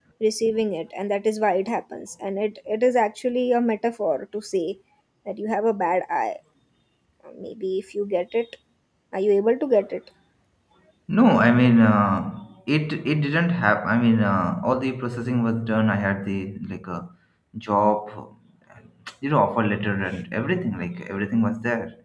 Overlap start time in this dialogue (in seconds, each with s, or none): none